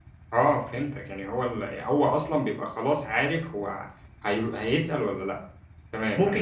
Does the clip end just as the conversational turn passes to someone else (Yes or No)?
Yes